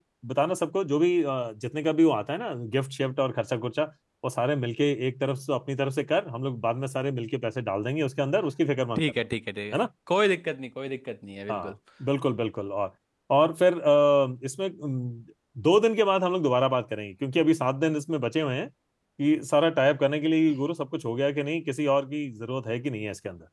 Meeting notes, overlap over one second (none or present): none